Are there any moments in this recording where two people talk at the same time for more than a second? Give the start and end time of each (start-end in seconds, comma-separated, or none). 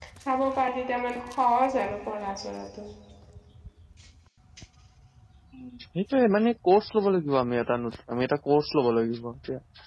none